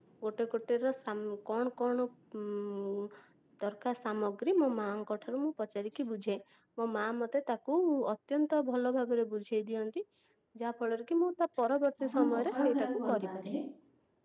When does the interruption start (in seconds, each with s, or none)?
12.0 s